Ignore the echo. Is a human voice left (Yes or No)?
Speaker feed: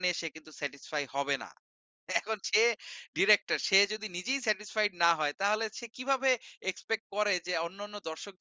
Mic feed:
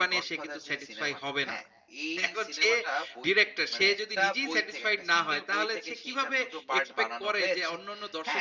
Yes